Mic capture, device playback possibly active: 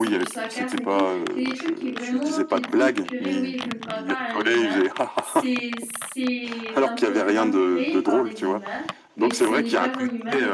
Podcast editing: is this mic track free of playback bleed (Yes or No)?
No